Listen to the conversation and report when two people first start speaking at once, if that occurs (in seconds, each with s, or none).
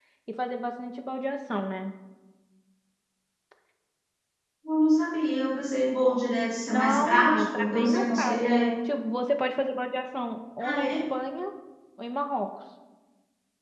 6.7 s